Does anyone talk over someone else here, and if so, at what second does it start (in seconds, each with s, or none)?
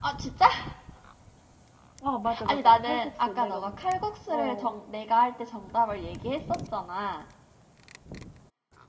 2.4 s